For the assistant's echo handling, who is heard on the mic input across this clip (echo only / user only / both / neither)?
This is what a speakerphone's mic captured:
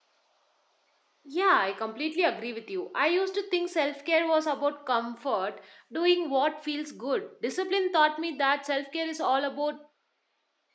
user only